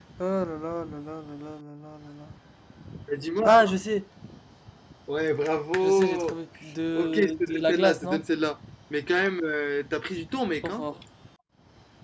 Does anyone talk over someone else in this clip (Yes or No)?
Yes